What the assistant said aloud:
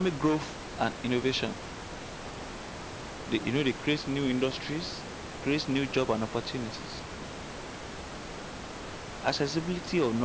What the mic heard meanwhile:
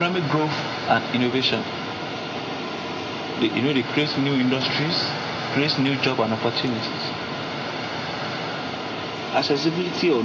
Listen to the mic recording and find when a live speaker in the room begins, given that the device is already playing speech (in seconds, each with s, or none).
none